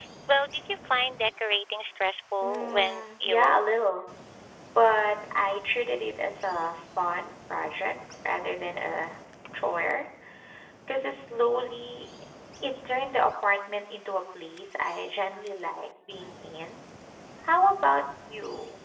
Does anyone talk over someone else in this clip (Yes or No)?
Yes